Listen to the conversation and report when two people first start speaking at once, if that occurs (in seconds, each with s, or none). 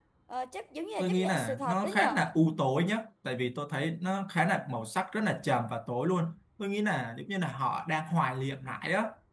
1.0 s